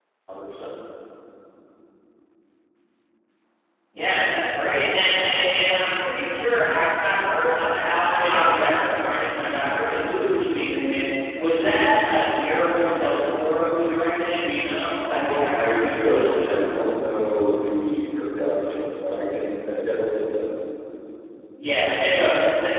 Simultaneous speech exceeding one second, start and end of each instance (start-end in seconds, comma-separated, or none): 15.0-16.9